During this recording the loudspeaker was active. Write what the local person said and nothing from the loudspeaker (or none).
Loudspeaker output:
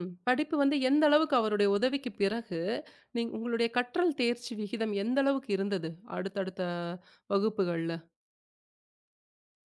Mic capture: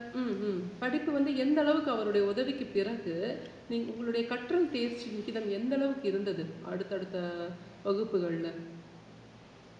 none